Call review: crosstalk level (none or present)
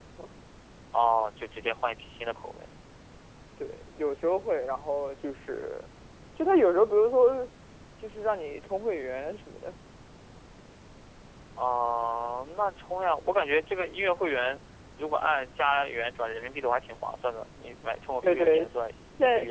present